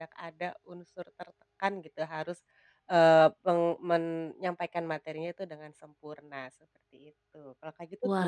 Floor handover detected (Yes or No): Yes